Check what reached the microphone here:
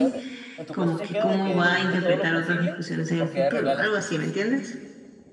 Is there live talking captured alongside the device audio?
Yes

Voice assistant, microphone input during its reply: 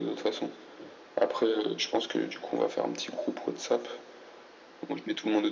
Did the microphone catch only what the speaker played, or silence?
Yes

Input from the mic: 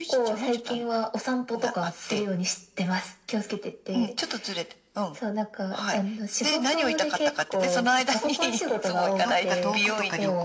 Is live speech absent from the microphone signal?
No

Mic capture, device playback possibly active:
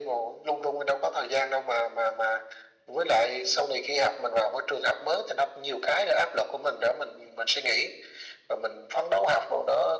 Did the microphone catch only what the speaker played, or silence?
Yes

